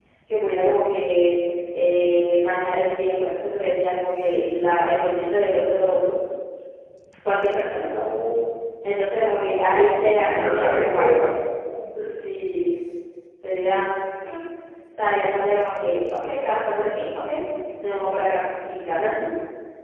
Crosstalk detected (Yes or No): Yes